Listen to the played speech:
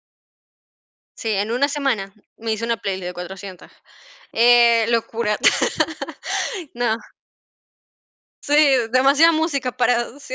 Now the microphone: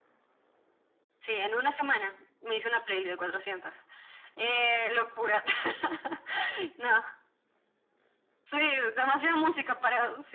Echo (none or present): present